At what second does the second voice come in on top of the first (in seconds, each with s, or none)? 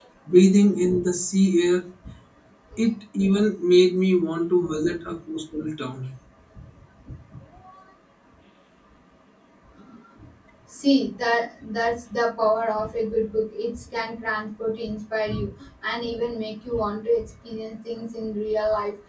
none